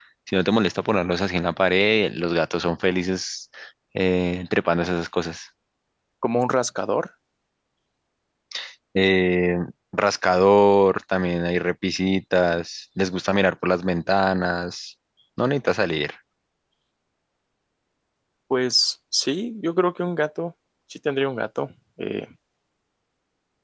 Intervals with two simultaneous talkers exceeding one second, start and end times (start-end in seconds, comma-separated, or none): none